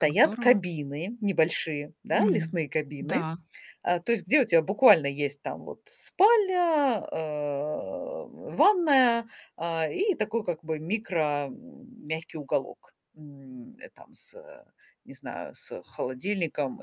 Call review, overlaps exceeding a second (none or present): none